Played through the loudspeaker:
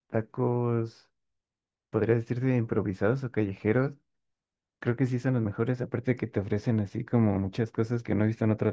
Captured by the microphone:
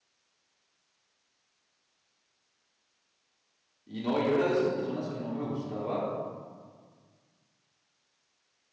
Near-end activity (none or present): present